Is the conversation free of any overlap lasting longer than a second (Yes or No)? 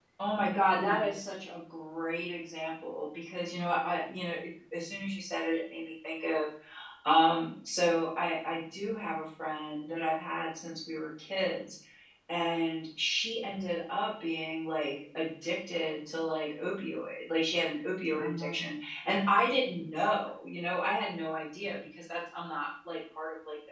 Yes